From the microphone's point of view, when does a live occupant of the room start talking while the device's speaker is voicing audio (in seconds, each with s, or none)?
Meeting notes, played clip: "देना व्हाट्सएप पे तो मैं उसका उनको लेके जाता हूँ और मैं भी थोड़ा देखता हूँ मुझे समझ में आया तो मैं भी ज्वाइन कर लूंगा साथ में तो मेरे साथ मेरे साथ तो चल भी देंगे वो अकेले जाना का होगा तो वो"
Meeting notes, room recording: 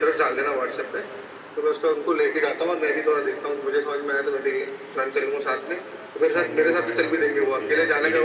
6.2 s